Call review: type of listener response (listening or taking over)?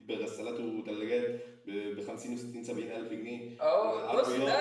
taking over